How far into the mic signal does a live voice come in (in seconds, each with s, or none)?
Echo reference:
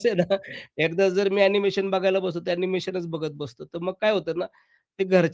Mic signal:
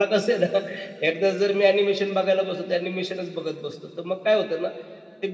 none